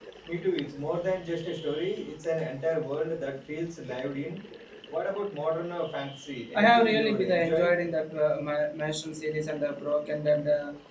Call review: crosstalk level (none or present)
present